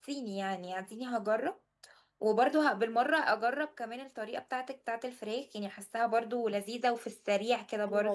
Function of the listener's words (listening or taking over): taking over